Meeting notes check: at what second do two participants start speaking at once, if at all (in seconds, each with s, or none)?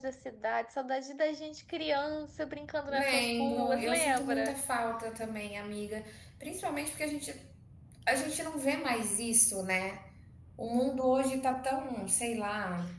2.9 s